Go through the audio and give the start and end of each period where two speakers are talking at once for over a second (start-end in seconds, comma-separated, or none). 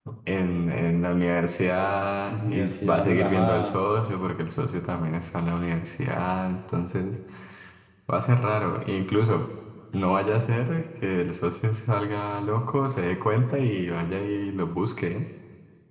2.3-3.8